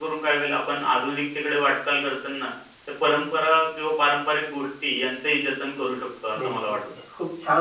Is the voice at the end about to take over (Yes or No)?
Yes